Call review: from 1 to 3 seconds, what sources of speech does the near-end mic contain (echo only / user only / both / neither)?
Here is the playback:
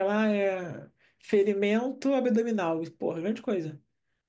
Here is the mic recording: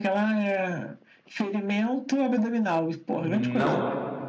echo only